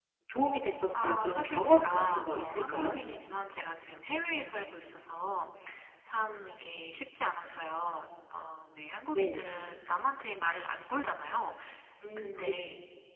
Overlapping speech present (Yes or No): Yes